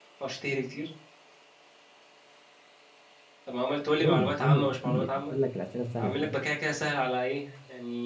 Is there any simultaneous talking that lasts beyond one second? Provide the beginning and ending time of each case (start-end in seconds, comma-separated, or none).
4.0-5.3